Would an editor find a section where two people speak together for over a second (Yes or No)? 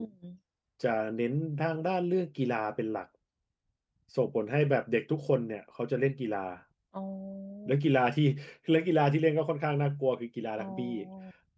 No